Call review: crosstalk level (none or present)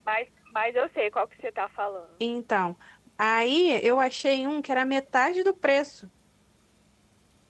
none